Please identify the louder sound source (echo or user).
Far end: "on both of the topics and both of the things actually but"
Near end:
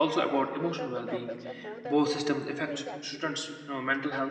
user